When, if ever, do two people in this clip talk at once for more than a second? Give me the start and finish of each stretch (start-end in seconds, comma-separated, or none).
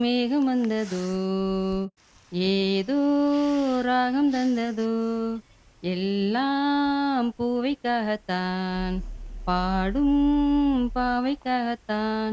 none